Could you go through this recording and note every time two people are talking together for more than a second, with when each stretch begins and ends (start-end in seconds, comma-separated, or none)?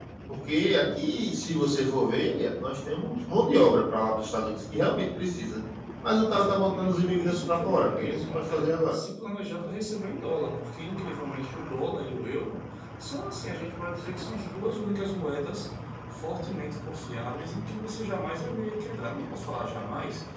6.3-9.0